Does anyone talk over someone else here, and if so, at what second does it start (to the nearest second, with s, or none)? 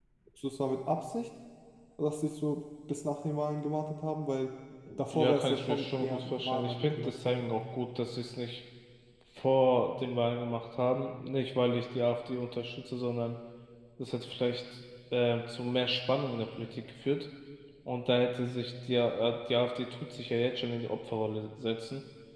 5 s